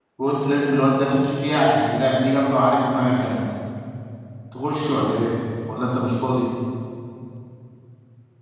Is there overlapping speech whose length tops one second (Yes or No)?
No